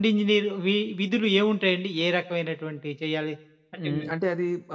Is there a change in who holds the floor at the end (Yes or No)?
Yes